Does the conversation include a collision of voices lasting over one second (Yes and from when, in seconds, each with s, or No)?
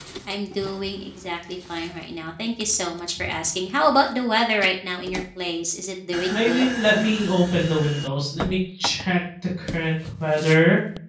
No